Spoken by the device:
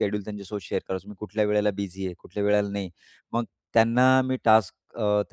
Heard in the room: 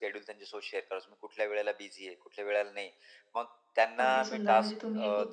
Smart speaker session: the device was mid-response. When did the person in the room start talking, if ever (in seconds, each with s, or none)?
4.0 s